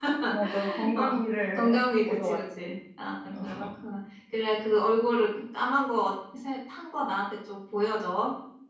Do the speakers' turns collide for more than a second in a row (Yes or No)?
Yes